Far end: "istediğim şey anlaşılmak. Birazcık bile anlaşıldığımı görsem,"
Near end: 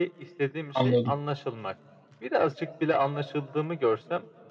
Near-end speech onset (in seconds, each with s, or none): 0.7 s